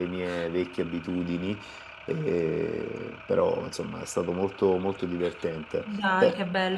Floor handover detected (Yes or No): Yes